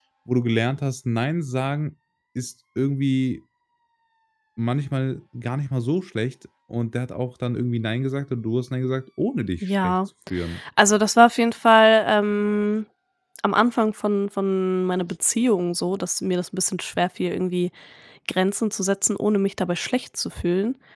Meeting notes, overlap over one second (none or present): none